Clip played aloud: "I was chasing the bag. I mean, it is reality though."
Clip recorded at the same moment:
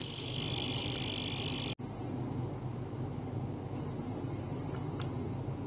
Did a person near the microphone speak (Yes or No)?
No